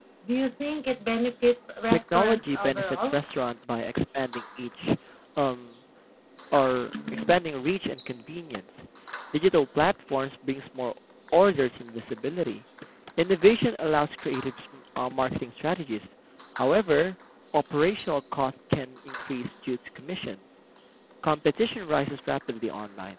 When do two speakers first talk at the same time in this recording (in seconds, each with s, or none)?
1.9 s